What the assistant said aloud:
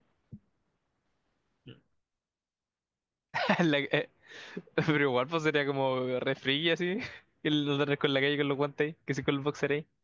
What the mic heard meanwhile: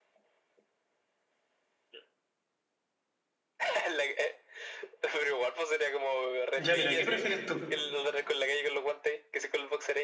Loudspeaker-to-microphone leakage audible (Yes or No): Yes